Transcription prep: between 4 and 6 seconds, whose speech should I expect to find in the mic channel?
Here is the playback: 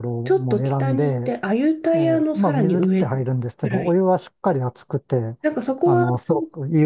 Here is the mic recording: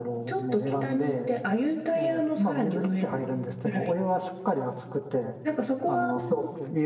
echo only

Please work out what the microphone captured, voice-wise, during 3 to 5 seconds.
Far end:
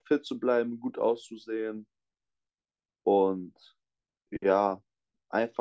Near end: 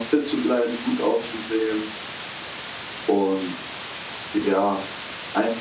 echo only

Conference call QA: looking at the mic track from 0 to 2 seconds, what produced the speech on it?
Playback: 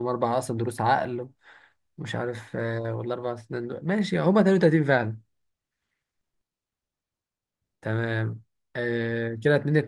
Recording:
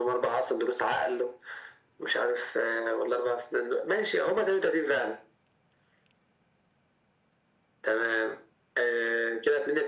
echo only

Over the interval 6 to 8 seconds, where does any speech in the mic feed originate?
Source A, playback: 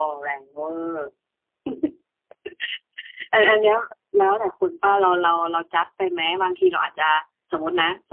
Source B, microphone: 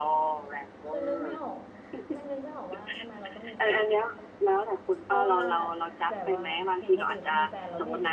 both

